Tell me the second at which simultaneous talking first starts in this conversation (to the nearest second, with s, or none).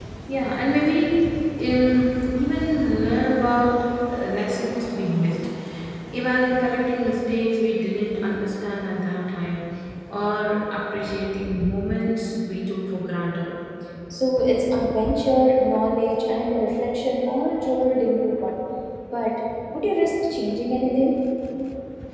none